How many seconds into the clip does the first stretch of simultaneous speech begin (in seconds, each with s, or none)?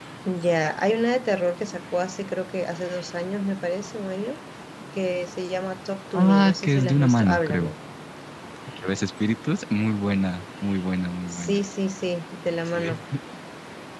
6.1 s